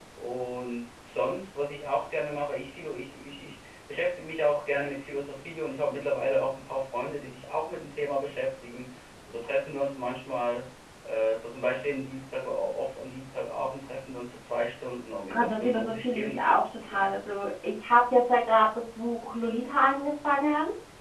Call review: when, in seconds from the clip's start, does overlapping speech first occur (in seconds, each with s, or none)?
15.3 s